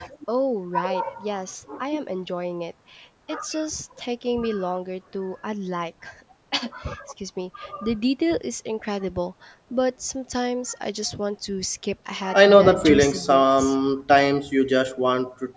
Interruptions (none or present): present